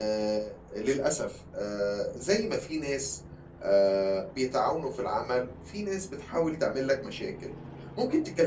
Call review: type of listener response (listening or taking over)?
listening